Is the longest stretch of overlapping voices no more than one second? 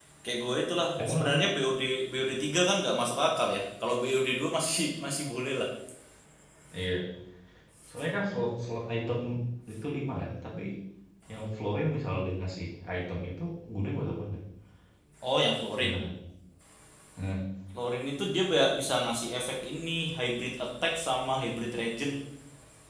Yes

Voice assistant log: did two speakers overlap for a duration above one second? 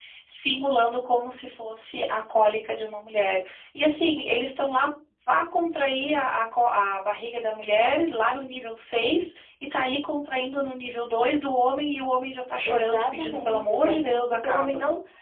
Yes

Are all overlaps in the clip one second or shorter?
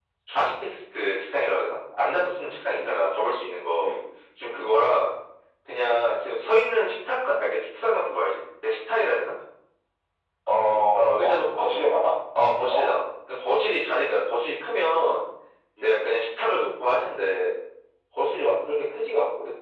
No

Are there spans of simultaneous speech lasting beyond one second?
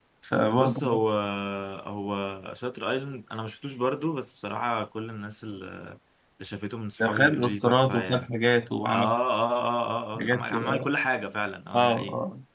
Yes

